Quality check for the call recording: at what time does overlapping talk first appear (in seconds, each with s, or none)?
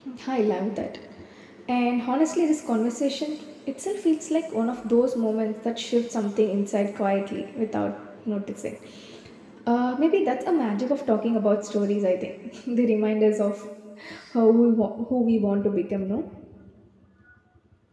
none